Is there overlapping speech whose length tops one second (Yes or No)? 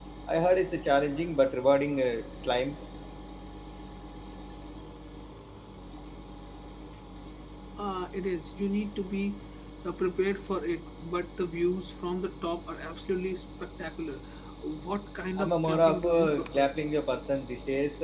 Yes